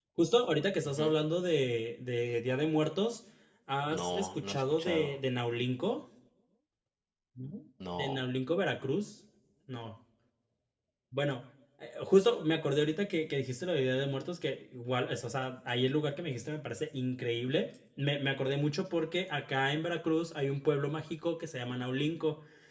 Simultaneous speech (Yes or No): Yes